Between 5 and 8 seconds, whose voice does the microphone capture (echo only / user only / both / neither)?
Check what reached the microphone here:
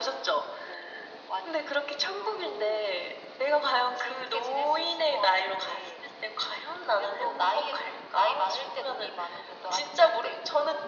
echo only